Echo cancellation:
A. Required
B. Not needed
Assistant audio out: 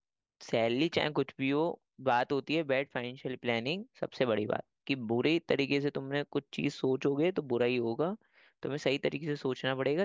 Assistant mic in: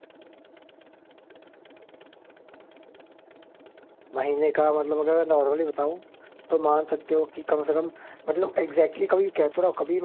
B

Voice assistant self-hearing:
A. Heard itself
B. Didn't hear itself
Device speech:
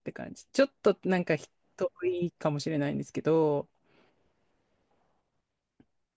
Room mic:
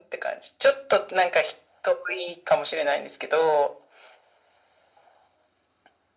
A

